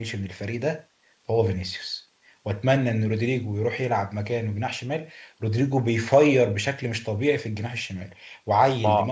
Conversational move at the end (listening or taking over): listening